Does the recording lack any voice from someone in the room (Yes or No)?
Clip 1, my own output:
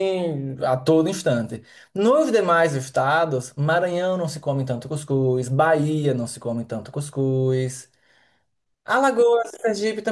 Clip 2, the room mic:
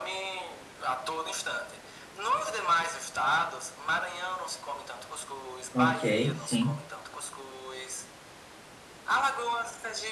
No